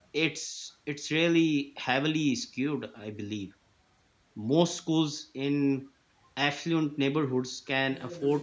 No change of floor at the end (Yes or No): Yes